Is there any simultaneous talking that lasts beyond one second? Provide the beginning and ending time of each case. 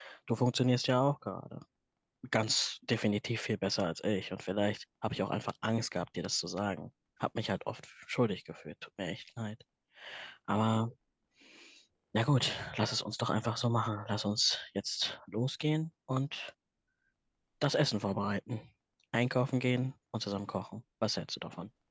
none

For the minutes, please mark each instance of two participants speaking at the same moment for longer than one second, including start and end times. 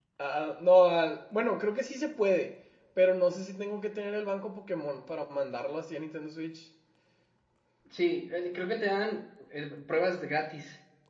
none

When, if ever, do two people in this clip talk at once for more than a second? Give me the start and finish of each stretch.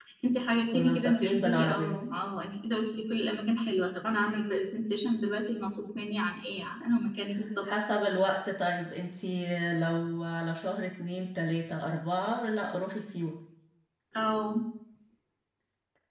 0.7-2.0

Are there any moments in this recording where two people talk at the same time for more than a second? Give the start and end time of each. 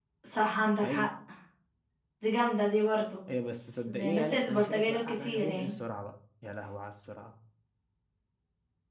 3.8-5.8

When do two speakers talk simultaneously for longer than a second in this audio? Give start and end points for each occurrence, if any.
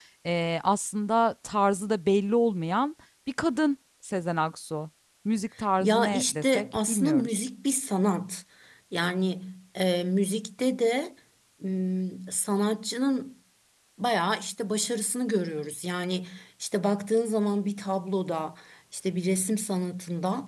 5.8-7.4

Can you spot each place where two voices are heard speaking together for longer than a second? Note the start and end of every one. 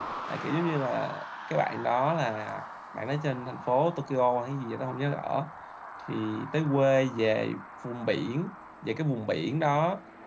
none

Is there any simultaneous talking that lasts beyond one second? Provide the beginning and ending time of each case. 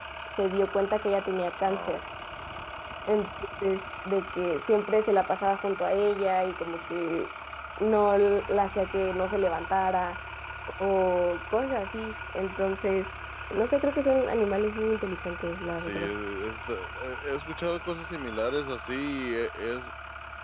none

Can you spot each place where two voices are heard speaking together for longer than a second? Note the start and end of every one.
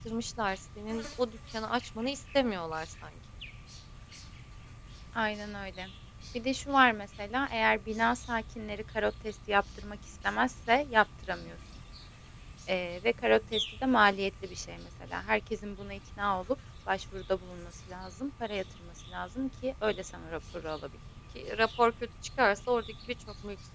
none

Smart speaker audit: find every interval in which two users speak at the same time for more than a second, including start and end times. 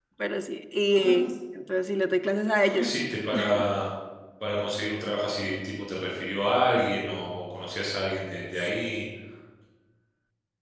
none

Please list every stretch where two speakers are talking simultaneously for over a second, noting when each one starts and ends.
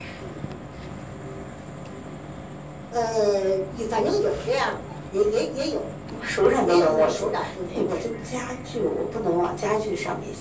6.4-8.0

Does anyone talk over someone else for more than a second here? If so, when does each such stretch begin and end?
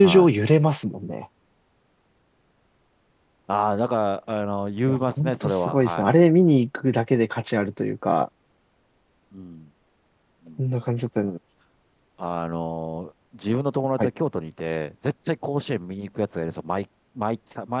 4.9-6.1

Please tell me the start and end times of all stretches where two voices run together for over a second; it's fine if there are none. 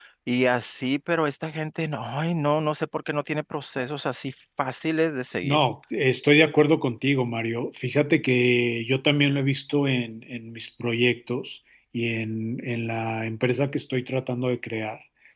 none

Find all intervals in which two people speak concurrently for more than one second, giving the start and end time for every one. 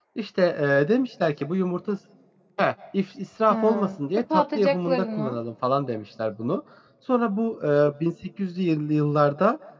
3.5-5.4

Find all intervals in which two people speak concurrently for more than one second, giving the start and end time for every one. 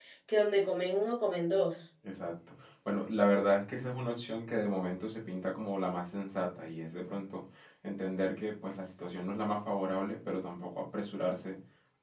none

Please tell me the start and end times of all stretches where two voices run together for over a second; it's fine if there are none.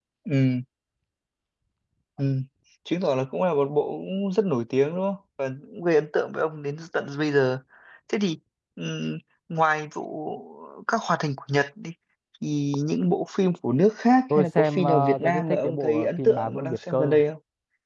14.3-17.2

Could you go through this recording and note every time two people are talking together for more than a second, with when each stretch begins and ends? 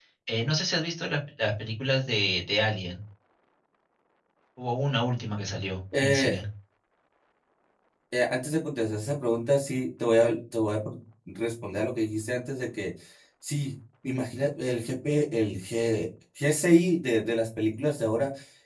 none

